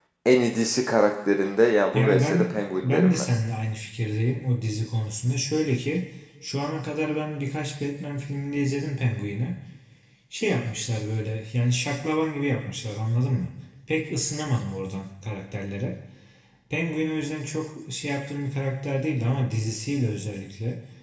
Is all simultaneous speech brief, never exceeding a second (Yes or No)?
No